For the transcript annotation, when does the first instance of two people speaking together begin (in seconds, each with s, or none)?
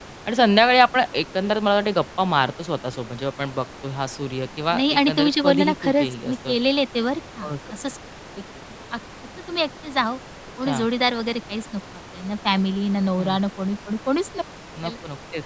4.8 s